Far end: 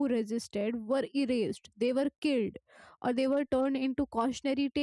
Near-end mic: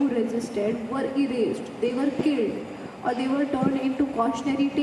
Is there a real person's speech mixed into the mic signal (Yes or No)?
No